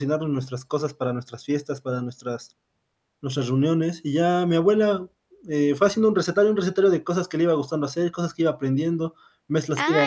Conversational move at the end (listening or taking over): taking over